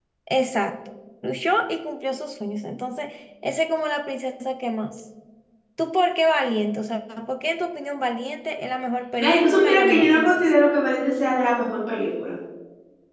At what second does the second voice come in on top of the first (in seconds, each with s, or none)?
9.2 s